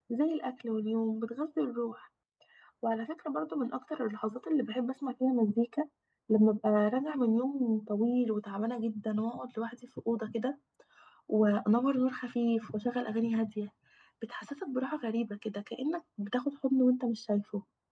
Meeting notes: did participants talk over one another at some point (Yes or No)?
No